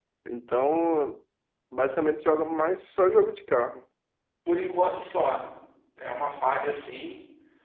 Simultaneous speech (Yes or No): No